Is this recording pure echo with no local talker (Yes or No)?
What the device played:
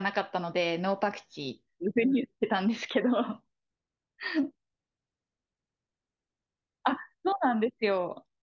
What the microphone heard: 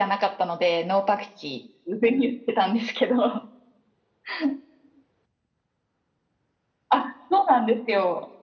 Yes